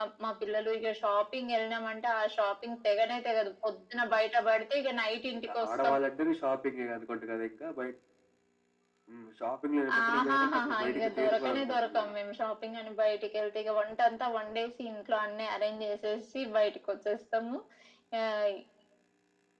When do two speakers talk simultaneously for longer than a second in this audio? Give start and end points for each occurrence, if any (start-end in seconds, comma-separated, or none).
10.0-12.1